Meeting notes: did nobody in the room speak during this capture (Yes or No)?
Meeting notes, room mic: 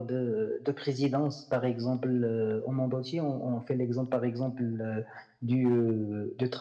Yes